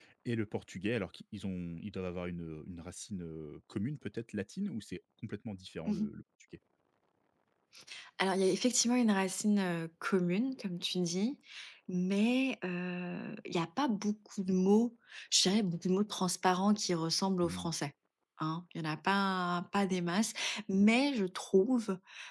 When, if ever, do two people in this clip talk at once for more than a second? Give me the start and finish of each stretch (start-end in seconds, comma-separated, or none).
none